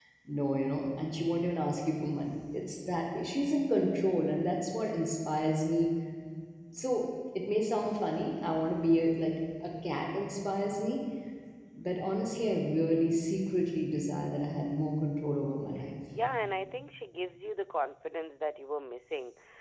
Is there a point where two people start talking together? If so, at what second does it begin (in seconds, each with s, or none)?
none